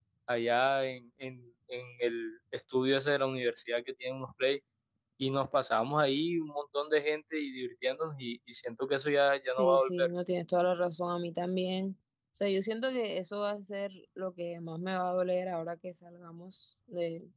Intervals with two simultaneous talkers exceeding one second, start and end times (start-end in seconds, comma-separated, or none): none